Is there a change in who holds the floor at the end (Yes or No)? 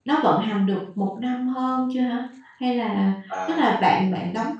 No